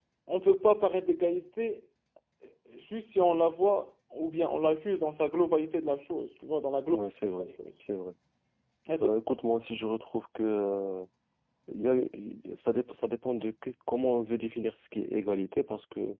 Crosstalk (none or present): none